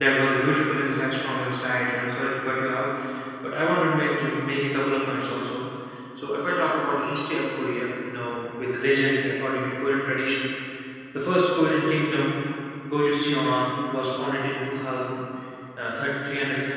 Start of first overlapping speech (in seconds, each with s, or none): none